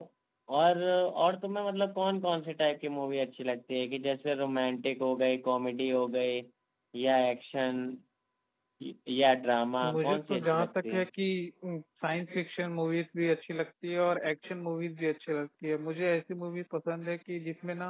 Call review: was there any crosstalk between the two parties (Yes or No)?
Yes